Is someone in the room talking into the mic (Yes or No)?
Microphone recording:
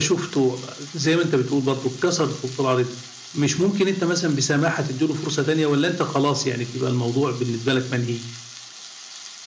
No